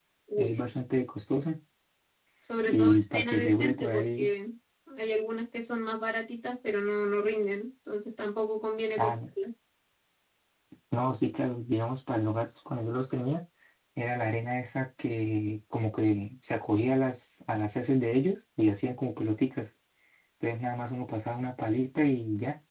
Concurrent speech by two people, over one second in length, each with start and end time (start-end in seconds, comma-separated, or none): 2.6-4.3